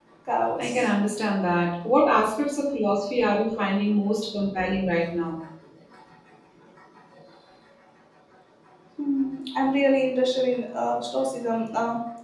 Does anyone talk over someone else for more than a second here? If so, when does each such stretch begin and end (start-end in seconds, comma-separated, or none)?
none